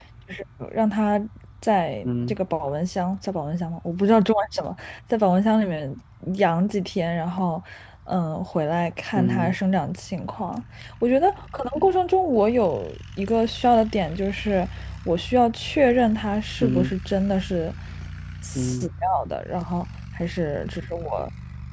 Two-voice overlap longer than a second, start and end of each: none

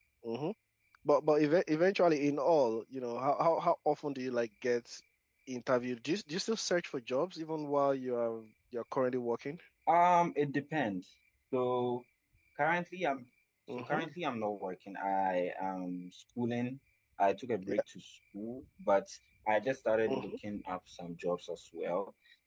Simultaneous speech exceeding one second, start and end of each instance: none

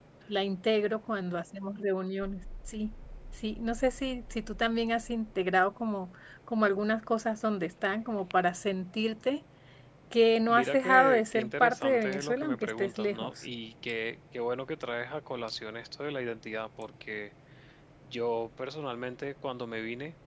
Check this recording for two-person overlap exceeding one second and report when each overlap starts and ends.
10.5-13.4

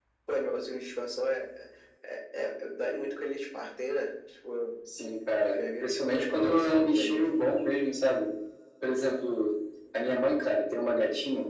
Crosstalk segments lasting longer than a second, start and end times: 5.6-7.3

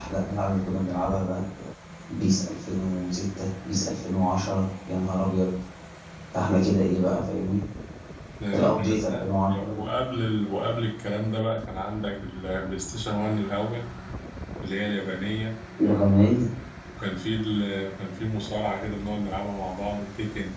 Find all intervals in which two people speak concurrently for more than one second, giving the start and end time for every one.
8.5-9.8

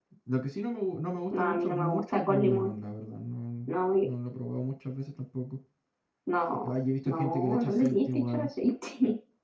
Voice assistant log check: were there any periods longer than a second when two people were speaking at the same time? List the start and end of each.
1.3-2.7, 7.0-8.5

